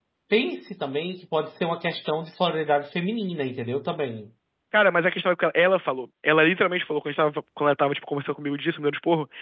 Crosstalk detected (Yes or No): No